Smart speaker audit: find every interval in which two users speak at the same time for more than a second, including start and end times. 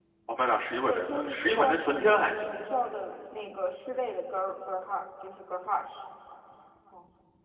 0.9-2.2

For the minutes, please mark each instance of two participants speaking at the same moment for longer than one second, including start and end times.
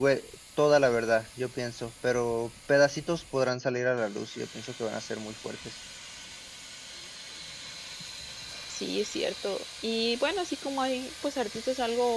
none

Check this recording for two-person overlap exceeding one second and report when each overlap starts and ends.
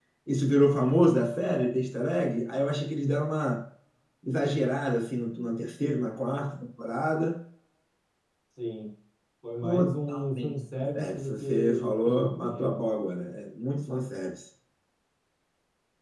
9.6-12.8

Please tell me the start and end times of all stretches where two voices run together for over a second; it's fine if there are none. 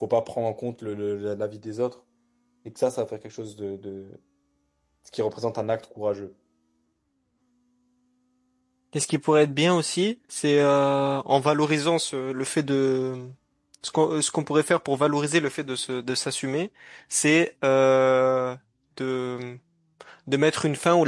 none

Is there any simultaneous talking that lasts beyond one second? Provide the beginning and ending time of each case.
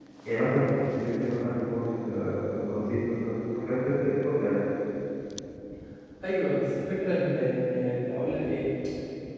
none

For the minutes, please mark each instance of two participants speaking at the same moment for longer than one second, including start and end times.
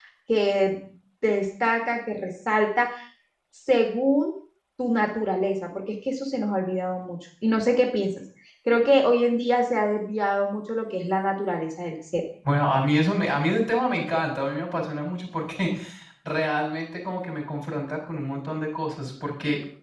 none

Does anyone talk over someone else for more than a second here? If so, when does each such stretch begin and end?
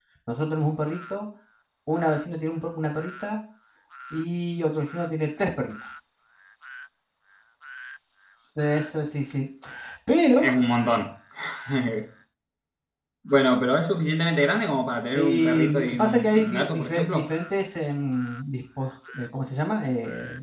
15.1-17.3

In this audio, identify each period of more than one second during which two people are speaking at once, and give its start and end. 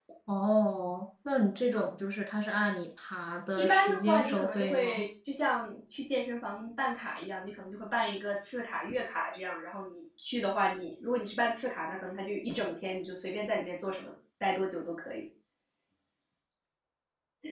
3.6-5.0

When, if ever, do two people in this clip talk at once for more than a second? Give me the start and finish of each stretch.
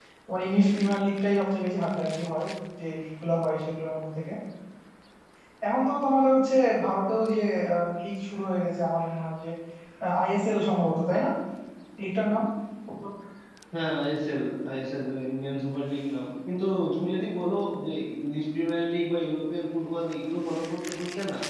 none

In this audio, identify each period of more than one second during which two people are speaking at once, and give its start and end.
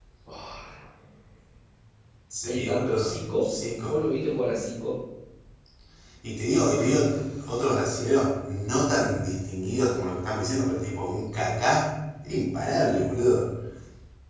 2.4-4.0

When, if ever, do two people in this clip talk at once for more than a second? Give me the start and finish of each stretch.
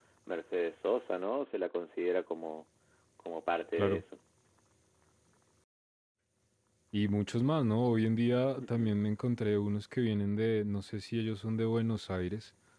none

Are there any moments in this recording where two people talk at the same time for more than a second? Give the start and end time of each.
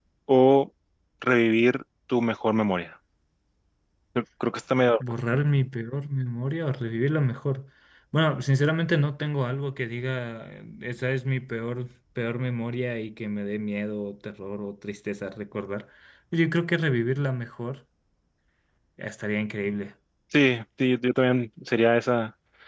none

